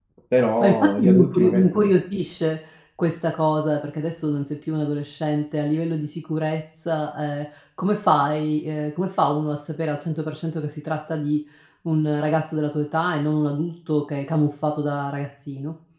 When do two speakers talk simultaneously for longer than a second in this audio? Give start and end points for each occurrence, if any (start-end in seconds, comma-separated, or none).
0.6-1.9